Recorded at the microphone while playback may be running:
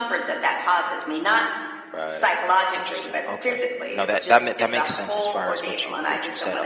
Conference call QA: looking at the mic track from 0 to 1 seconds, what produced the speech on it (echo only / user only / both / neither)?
echo only